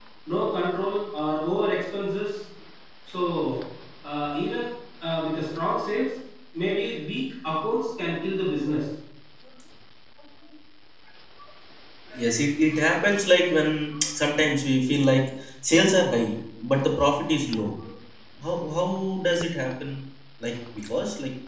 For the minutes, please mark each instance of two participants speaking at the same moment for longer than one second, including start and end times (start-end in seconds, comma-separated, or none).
none